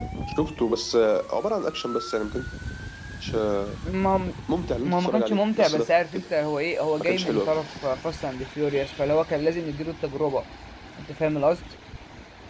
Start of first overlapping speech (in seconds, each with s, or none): 4.8 s